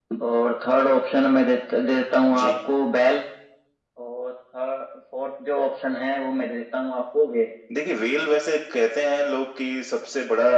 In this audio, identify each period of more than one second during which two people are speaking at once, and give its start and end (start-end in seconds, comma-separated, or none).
none